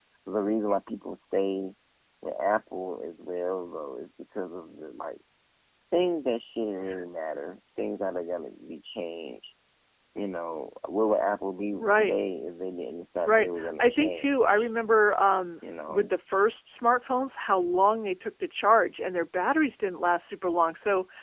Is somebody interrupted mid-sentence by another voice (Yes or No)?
Yes